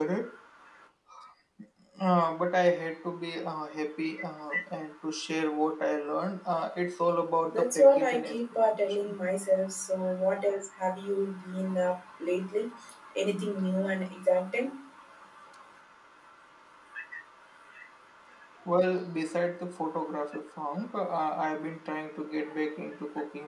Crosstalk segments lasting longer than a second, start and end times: 7.5-9.2

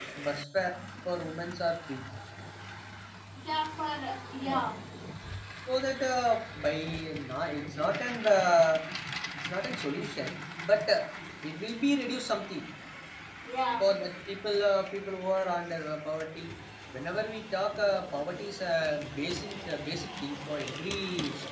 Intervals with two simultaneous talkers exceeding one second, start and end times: none

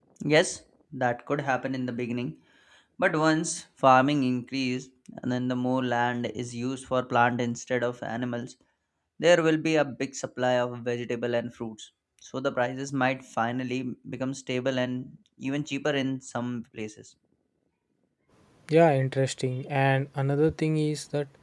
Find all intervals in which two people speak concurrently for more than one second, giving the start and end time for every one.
none

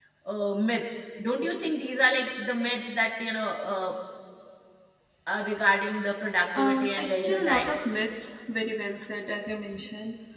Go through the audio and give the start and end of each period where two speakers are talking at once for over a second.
6.6-7.8

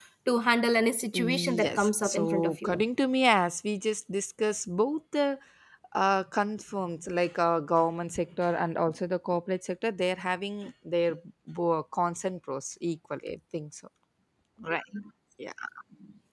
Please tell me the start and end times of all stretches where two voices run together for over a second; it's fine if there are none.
1.1-2.8

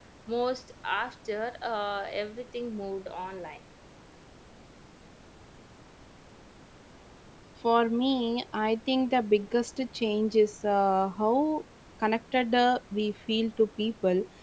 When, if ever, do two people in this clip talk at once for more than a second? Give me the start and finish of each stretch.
none

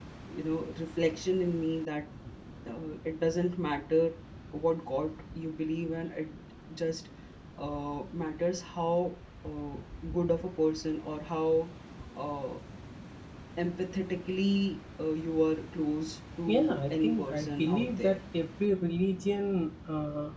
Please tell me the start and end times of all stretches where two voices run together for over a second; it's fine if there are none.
16.5-18.2

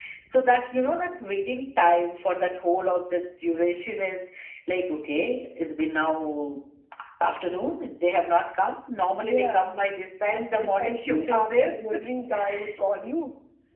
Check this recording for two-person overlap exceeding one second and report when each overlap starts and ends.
10.3-11.7

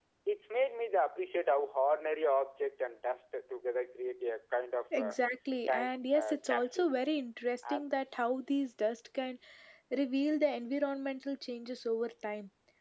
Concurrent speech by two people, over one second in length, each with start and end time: 5.7-6.9

